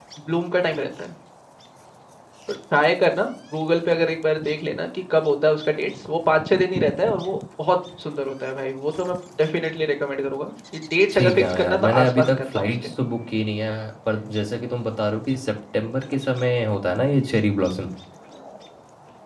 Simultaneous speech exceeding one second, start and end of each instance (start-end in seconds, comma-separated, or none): 11.1-12.9